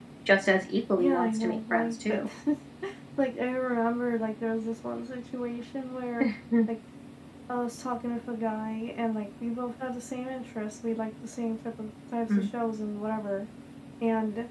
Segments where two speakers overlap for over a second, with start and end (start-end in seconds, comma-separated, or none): 1.0-2.3